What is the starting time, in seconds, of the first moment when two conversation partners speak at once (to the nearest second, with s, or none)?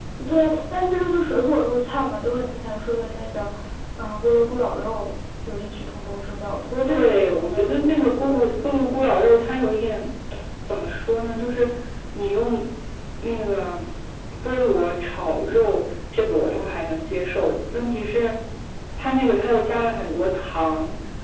7 s